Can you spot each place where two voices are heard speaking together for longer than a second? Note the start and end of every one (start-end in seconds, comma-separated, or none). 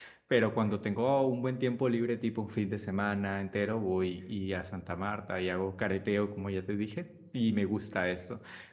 none